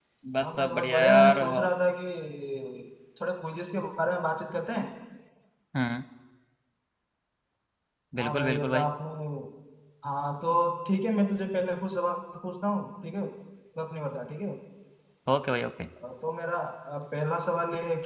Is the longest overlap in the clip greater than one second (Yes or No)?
Yes